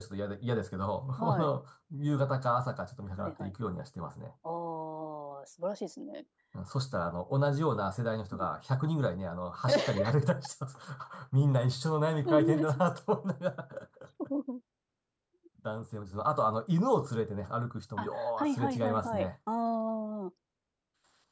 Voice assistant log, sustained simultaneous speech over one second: present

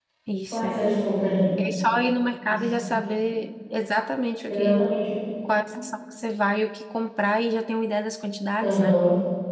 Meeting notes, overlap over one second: none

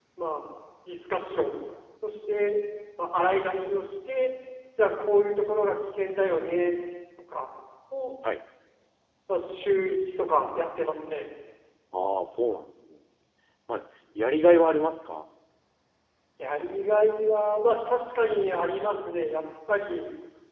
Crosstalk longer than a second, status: none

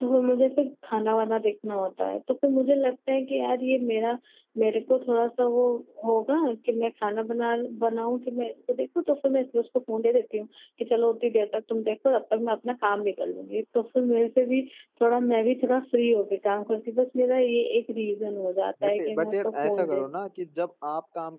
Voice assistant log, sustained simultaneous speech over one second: present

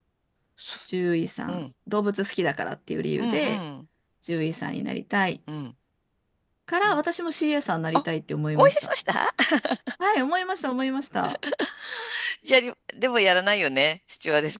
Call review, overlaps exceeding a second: none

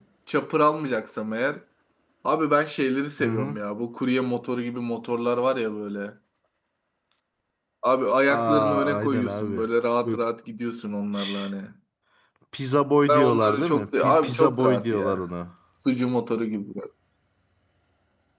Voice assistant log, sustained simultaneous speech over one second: present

